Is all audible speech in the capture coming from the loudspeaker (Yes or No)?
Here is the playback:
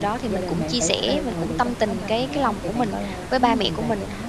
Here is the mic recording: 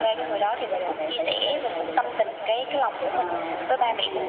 No